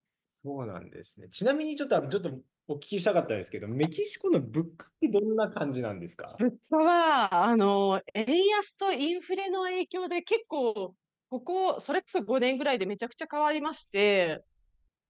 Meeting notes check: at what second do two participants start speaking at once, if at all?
none

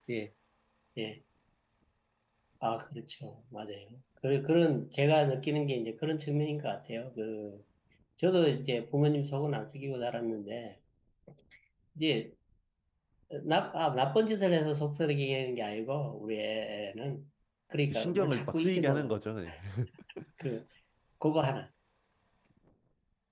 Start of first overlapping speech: 17.9 s

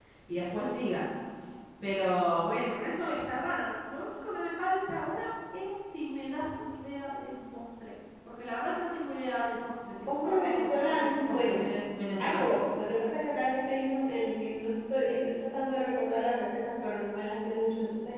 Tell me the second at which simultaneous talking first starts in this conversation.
10.1 s

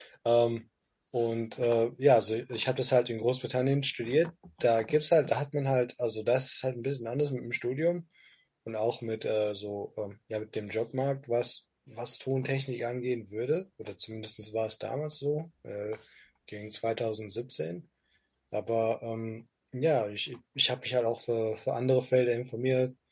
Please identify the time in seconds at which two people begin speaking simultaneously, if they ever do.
none

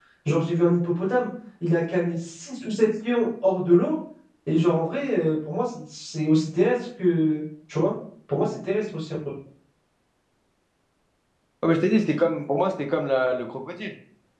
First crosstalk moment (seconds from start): none

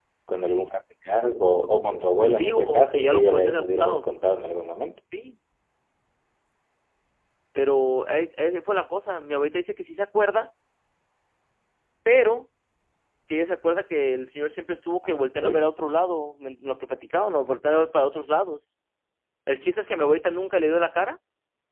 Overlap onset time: 2.2 s

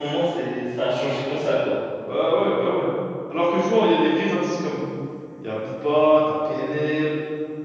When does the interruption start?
none

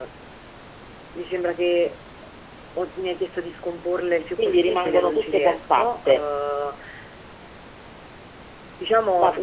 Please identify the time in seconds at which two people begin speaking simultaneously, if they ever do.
4.4 s

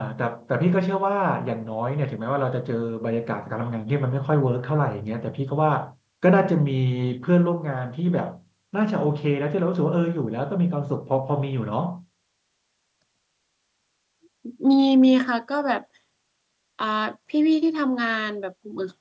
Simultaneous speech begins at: none

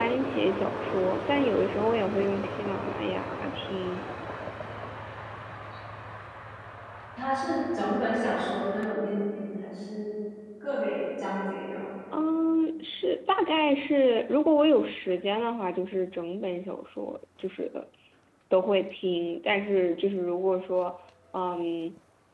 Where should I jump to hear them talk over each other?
none

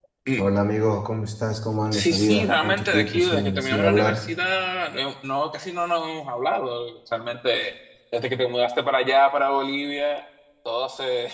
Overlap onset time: 1.9 s

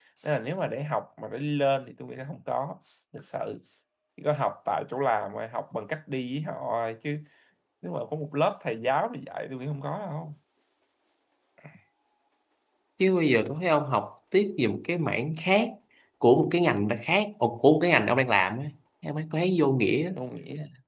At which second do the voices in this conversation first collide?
none

